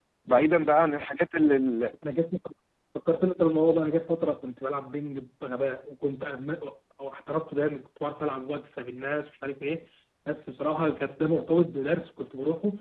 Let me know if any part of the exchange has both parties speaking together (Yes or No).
No